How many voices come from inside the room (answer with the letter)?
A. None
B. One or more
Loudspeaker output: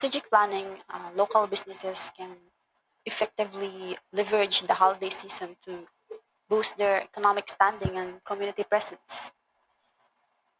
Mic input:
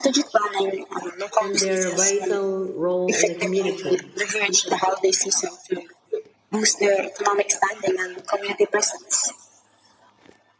B